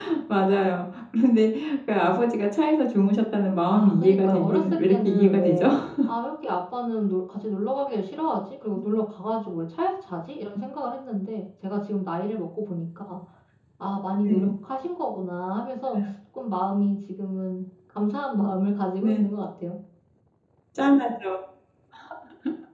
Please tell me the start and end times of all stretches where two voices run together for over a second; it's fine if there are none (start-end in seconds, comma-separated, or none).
3.7-5.6